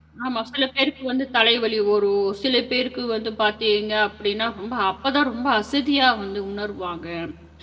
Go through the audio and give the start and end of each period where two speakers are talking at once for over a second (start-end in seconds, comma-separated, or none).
none